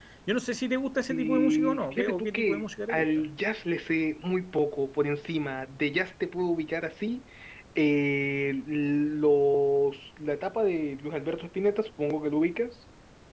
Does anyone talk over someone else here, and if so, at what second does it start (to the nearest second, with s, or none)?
1 s